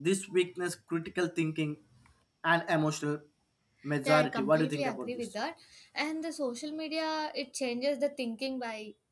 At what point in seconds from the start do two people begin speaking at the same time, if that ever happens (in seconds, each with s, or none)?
4.0 s